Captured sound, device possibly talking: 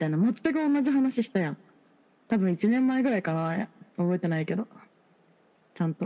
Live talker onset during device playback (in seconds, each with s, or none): none